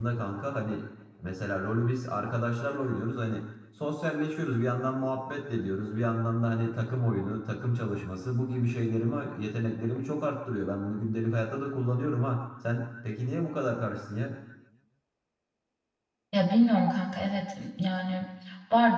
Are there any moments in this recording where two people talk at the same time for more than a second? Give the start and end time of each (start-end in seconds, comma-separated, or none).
none